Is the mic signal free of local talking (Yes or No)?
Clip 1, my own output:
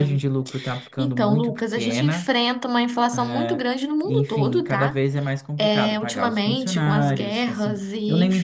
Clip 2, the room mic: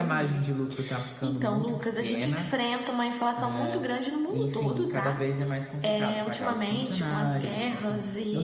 Yes